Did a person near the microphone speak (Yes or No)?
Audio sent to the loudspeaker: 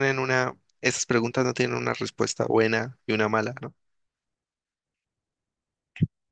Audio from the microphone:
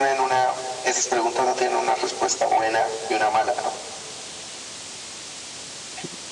No